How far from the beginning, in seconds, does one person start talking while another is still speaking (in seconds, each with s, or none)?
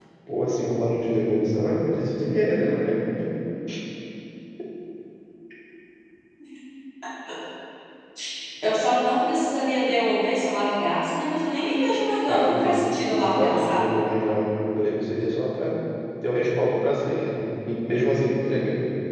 12.3 s